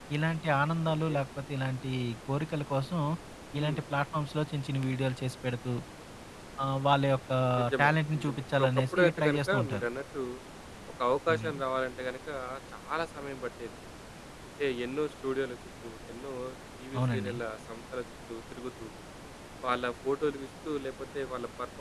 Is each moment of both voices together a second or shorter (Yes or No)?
No